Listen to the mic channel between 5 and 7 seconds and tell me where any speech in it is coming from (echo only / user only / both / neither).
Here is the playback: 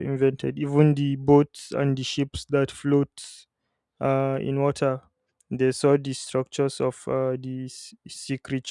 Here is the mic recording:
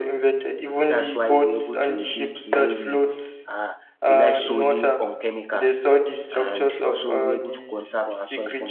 both